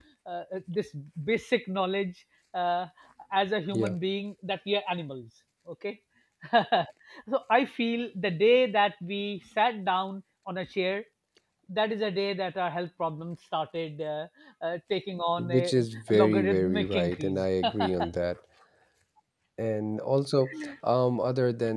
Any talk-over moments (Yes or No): Yes